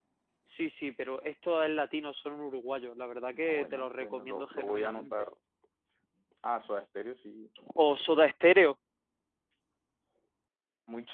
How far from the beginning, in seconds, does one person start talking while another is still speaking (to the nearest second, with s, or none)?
3 s